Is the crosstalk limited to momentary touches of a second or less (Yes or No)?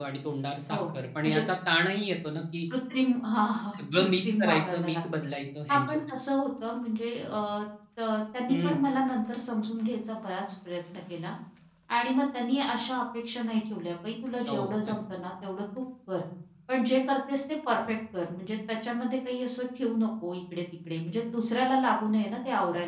No